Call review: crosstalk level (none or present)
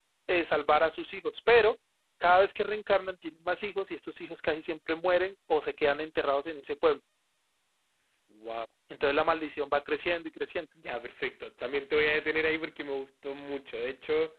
none